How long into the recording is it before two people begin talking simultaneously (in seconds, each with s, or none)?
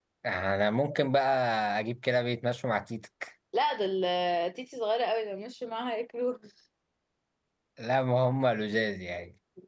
none